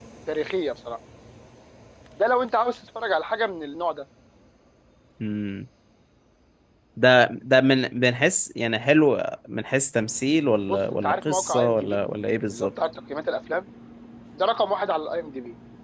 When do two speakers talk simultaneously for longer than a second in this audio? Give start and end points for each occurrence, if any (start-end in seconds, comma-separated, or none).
10.7-12.0